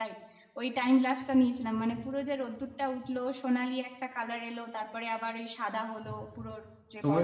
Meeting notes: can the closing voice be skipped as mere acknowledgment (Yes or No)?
No